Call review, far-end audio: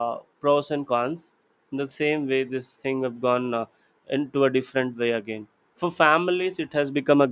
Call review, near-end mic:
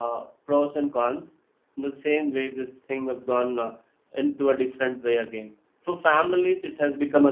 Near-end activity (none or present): none